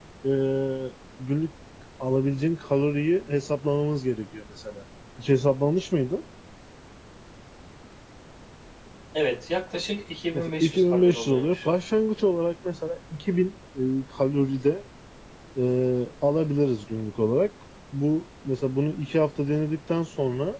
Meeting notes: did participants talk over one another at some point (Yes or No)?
Yes